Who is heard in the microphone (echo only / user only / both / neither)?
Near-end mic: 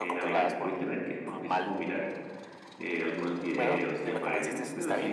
both